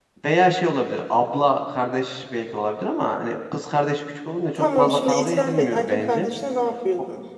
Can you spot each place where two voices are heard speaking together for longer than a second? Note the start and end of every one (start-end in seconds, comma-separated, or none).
4.5-6.3